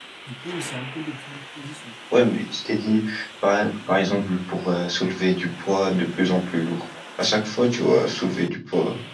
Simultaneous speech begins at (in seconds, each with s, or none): none